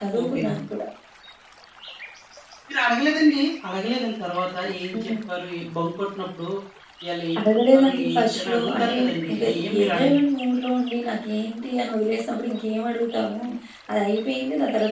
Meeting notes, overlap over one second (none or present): present